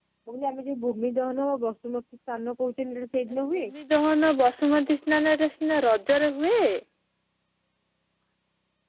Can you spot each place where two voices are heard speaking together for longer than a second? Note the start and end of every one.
none

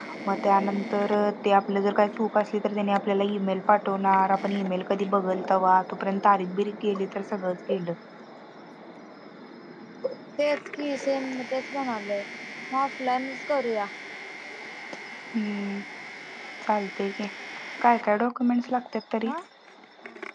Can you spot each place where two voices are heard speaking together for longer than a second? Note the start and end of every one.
none

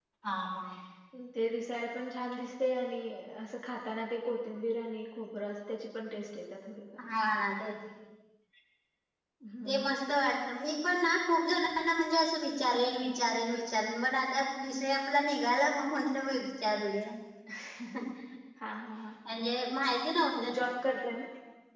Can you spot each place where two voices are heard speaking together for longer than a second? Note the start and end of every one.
none

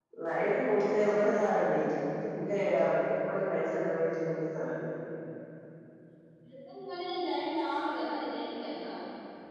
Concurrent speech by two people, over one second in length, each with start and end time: none

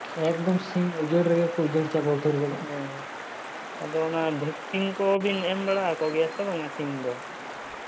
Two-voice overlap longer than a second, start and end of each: none

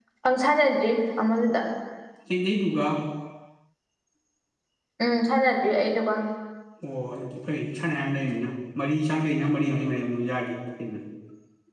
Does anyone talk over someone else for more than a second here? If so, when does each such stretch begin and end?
none

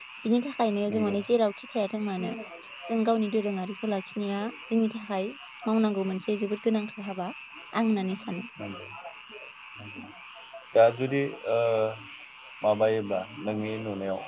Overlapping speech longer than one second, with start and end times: none

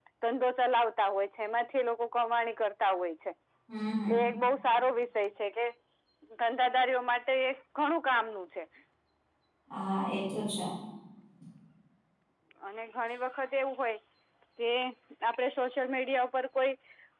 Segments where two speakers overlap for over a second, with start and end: none

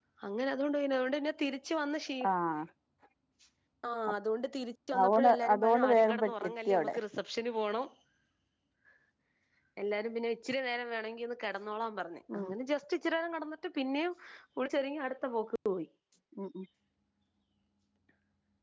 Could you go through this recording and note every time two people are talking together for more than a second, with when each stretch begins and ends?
5.0-6.9

